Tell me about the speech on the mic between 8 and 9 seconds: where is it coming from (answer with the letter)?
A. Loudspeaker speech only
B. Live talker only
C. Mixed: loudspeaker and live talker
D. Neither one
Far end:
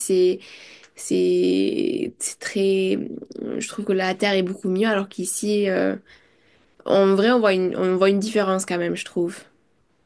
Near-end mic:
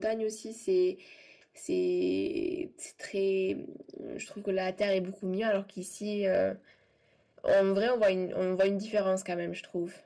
A